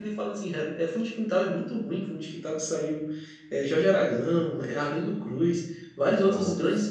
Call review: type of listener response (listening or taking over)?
listening